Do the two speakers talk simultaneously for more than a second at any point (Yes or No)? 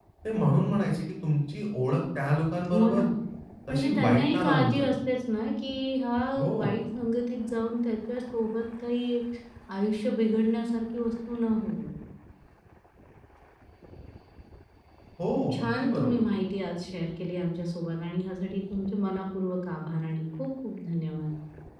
Yes